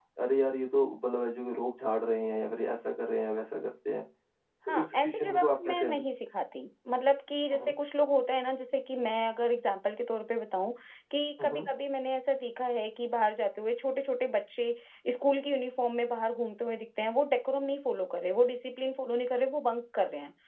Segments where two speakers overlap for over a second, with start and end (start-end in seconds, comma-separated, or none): 4.7-6.0